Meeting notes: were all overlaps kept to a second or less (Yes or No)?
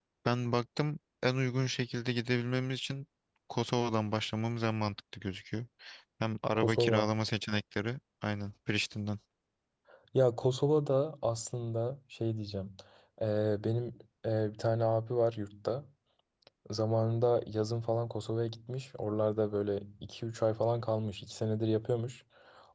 Yes